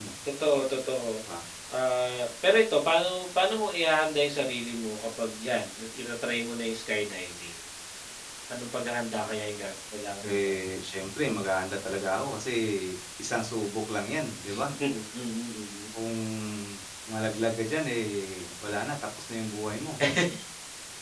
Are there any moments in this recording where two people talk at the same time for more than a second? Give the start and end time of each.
none

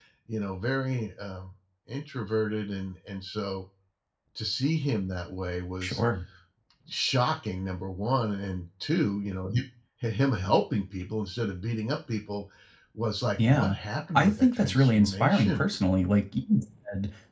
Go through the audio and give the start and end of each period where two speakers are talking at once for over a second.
14.2-15.6

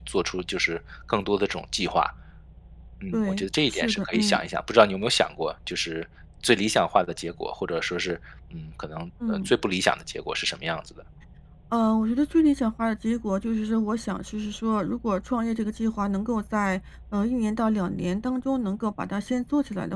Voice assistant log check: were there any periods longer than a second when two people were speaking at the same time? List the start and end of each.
3.1-4.4

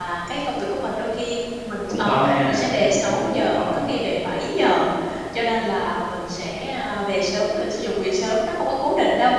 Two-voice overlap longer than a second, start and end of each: 1.9-3.8

